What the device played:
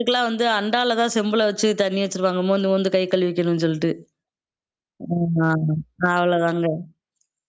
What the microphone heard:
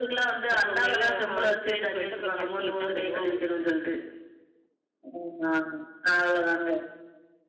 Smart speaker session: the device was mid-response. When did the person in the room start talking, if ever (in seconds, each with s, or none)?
0.5 s